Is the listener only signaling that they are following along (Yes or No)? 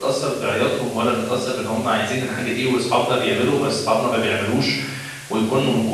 Yes